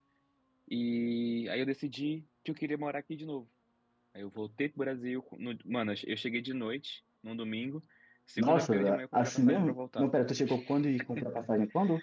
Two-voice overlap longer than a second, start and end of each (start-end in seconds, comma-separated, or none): 8.4-10.1